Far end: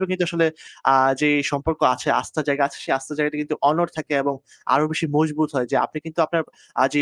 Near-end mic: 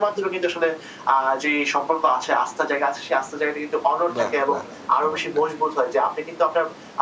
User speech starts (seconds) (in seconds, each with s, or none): 4.2 s